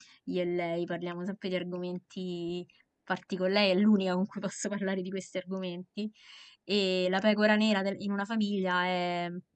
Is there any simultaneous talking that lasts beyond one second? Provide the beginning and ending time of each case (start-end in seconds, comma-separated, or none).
none